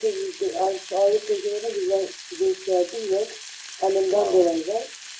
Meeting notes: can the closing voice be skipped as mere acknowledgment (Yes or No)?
Yes